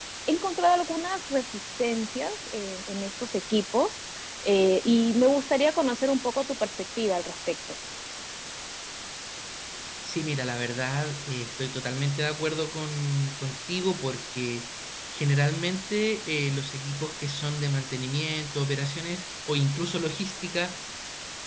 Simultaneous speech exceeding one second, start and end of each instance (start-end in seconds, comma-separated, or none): none